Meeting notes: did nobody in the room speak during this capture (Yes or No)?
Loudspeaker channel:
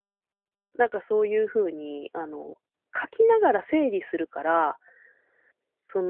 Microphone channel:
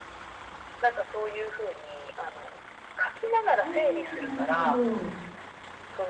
No